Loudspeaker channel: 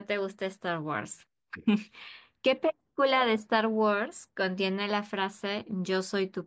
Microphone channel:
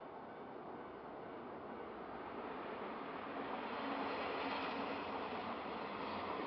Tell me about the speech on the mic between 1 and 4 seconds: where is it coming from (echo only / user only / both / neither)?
neither